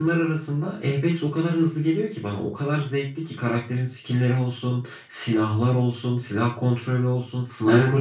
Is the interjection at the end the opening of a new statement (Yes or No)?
Yes